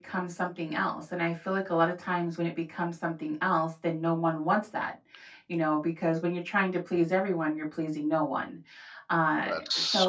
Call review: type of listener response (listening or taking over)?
listening